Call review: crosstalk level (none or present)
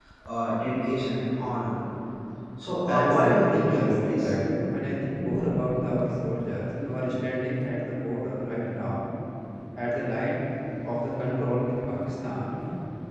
present